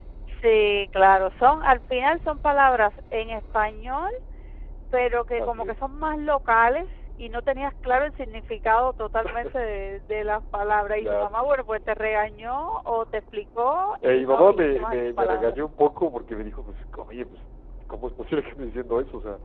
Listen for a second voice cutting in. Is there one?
Yes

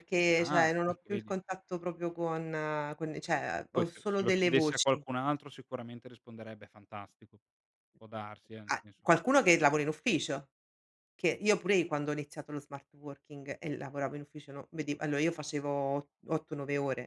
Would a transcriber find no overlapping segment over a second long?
No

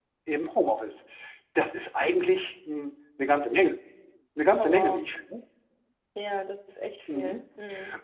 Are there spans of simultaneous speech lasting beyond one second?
No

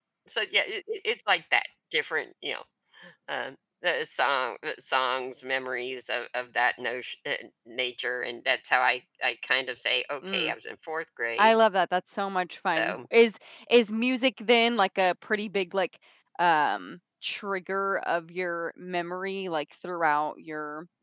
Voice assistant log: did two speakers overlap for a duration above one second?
No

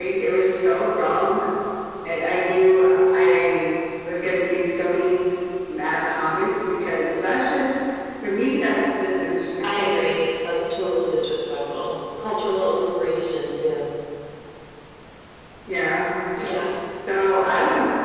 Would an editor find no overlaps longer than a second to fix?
Yes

